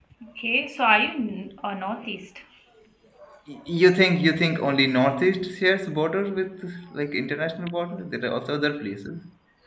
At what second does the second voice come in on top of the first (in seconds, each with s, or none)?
none